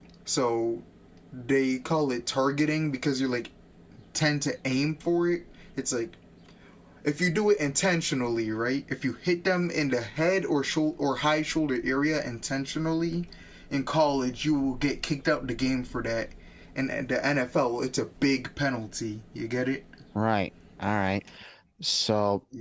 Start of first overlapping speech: none

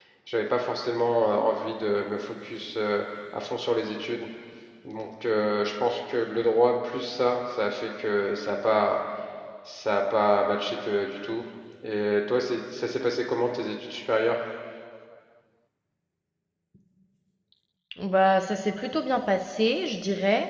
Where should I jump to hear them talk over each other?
none

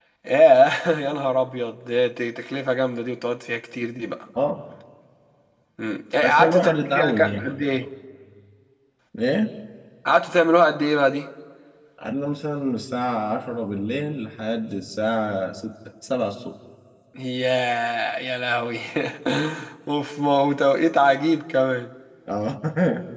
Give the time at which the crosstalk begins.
6.2 s

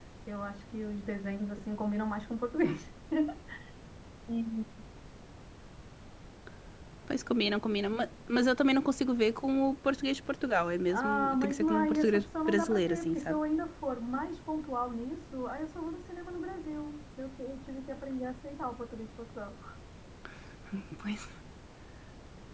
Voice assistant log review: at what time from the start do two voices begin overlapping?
10.9 s

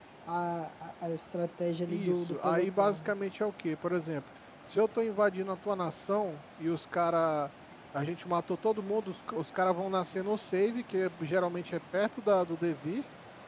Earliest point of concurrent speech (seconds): 1.9 s

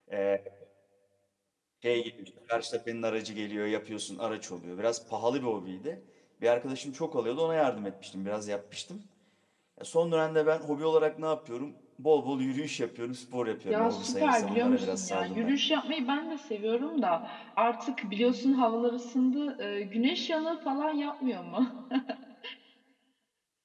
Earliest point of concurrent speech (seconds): 13.7 s

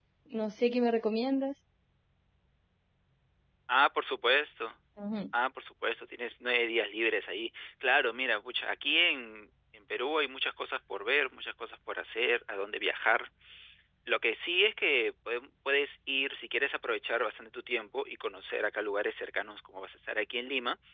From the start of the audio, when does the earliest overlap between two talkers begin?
none

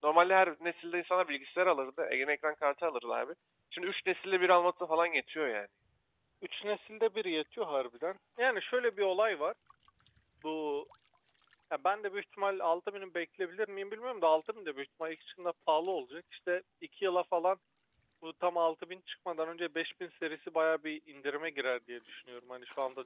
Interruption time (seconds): none

